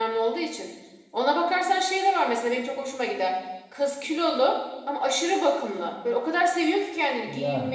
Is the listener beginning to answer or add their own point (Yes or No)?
No